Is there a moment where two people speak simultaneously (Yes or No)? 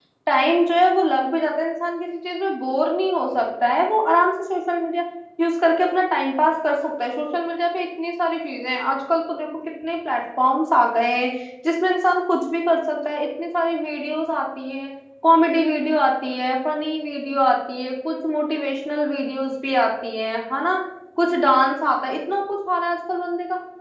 No